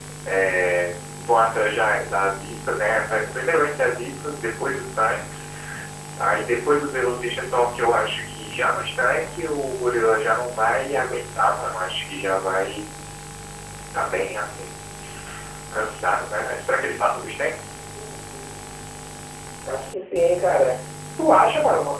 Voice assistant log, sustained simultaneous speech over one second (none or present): none